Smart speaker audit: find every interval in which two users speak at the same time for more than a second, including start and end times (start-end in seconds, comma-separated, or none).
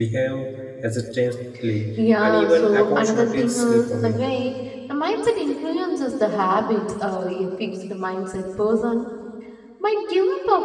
2.2-4.2